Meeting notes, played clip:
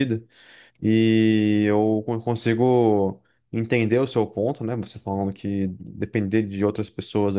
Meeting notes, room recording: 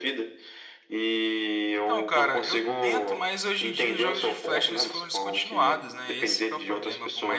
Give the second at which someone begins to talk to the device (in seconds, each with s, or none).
1.8 s